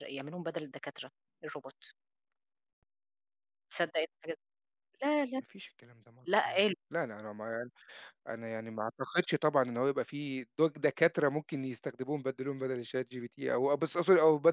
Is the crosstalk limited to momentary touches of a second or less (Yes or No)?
Yes